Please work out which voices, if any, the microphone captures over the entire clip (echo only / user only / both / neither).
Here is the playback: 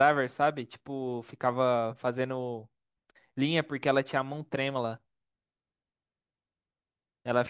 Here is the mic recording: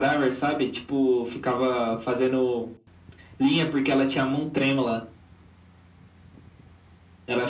echo only